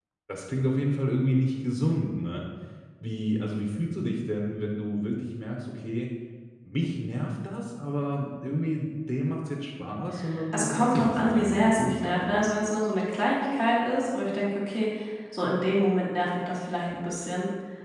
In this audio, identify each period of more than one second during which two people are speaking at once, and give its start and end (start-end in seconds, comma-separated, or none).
10.5-12.3